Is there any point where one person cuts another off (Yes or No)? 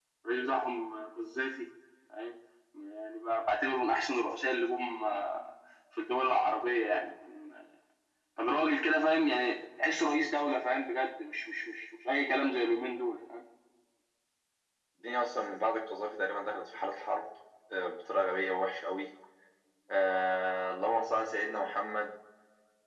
No